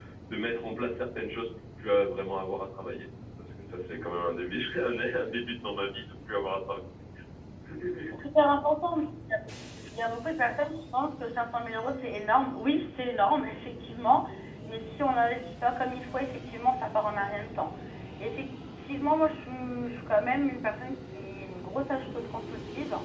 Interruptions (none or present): none